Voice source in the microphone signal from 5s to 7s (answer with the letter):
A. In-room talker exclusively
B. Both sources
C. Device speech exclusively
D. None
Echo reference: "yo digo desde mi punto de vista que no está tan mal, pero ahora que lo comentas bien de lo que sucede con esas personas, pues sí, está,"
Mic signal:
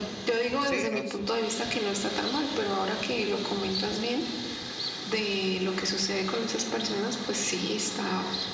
C